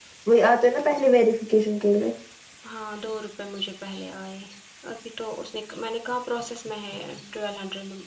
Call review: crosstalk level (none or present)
none